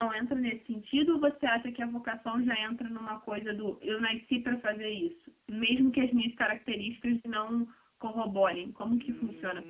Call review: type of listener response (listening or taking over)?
taking over